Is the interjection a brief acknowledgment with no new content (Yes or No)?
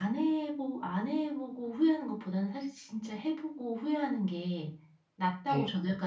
Yes